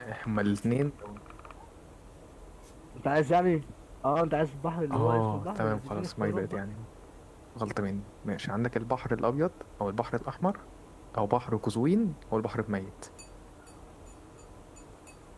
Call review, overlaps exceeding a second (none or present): present